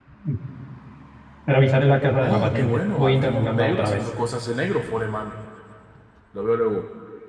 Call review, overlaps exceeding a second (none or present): present